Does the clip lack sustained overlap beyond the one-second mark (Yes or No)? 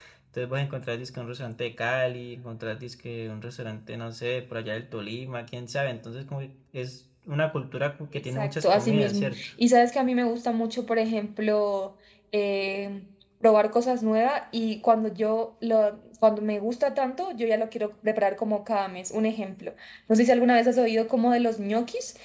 No